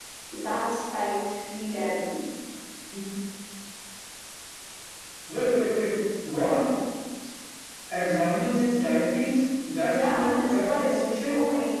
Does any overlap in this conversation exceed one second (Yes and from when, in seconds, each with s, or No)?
Yes, from 9.8 s